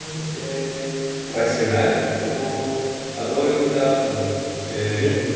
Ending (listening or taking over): taking over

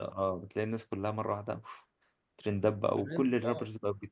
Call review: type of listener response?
taking over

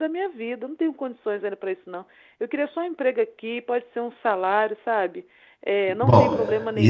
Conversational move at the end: taking over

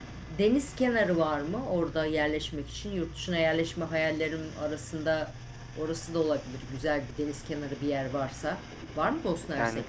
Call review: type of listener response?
taking over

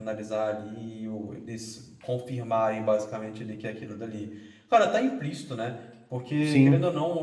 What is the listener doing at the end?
listening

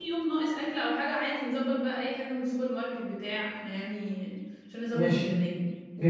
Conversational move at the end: taking over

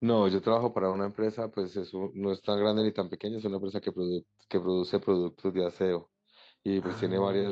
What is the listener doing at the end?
listening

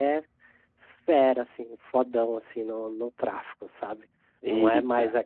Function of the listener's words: listening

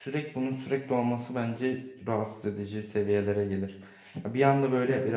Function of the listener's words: listening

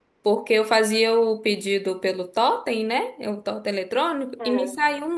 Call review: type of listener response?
listening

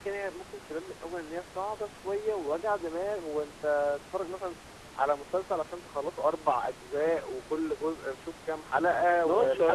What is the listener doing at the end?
taking over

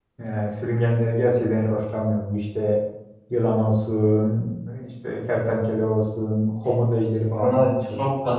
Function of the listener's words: taking over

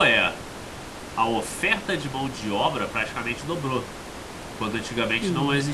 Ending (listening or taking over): listening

